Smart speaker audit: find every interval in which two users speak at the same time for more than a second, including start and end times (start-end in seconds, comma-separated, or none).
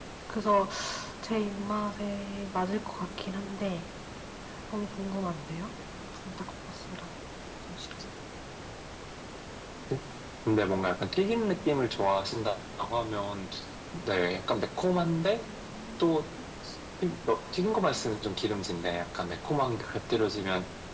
none